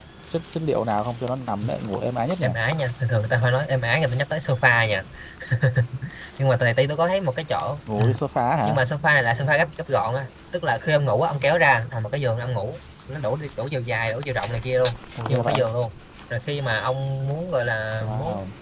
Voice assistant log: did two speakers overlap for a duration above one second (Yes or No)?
No